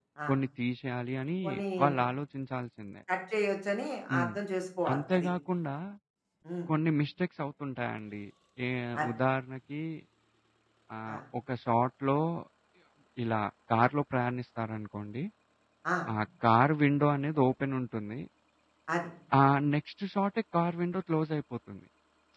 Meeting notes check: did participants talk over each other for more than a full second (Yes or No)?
No